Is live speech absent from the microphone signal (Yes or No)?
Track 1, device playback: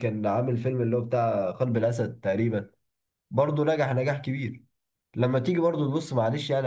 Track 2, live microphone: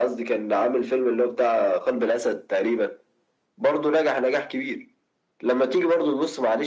Yes